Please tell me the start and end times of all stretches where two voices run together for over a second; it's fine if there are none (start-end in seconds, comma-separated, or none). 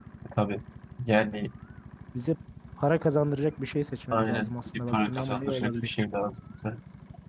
4.1-5.9